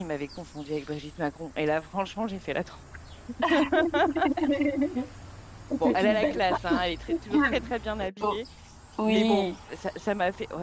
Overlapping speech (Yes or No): Yes